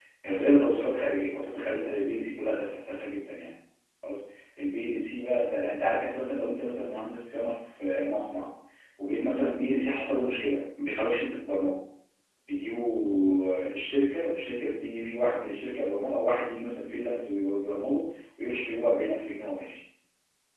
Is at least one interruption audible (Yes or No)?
No